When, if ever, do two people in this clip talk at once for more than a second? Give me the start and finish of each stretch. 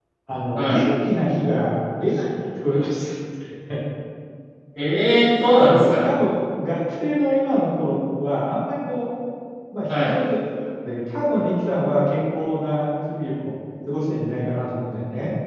none

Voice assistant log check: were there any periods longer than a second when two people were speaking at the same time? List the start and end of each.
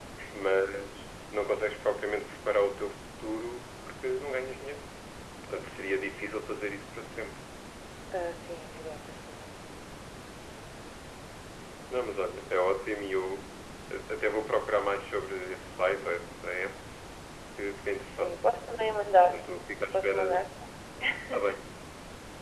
none

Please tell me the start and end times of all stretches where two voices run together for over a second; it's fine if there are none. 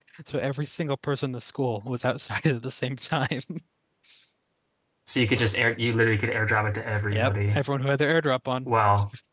none

